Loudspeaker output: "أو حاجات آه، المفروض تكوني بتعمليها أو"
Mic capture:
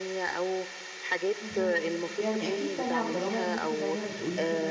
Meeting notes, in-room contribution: present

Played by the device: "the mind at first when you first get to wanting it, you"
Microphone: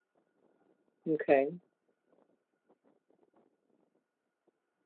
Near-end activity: present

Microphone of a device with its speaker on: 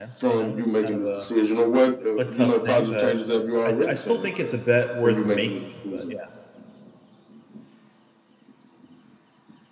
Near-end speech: present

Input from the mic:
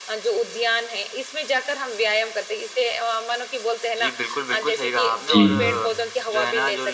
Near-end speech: present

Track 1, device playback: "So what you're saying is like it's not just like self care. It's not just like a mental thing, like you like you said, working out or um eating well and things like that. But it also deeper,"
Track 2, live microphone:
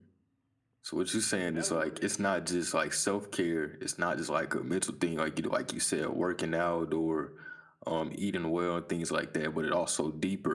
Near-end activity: present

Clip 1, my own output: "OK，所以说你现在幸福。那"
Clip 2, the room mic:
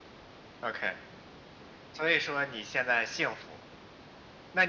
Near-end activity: none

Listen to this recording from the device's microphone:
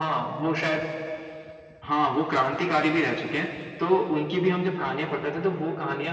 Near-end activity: none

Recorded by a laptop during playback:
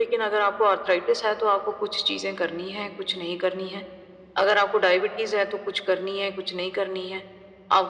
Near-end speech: none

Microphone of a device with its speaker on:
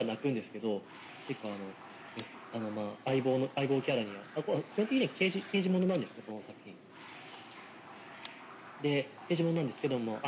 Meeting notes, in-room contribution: none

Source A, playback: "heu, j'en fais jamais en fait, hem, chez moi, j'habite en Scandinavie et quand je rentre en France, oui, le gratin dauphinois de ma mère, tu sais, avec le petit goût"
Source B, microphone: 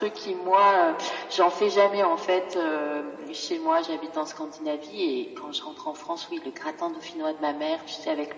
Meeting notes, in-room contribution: none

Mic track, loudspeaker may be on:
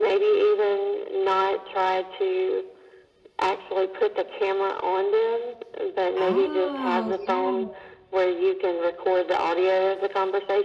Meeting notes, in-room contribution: present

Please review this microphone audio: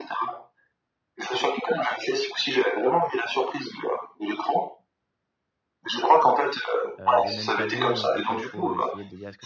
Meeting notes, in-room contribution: present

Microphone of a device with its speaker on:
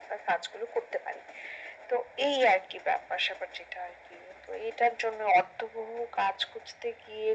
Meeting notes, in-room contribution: none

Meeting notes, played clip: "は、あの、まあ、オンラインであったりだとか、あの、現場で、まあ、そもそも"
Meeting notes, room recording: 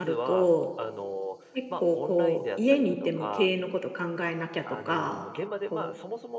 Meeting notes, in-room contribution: present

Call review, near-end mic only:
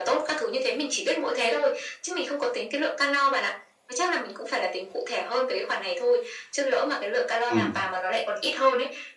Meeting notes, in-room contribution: present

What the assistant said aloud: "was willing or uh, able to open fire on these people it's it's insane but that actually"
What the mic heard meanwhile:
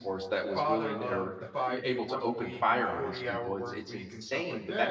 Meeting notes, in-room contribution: present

